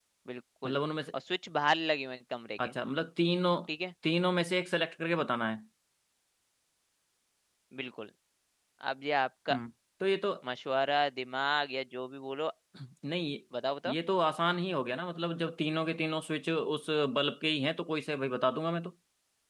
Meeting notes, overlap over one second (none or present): none